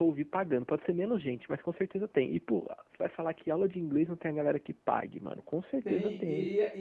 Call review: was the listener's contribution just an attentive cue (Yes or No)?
No